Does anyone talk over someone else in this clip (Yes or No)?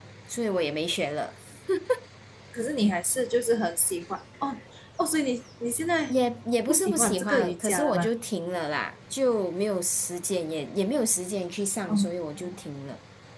Yes